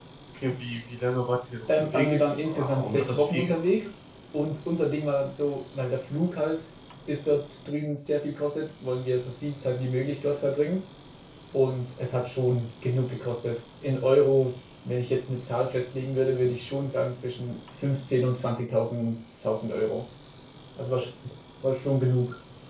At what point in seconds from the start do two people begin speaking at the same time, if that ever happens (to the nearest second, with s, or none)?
2 s